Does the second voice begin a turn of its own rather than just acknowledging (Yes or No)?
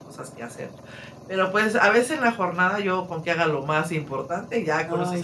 Yes